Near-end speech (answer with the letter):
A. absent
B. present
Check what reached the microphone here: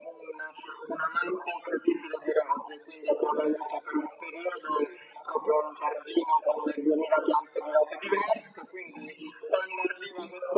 A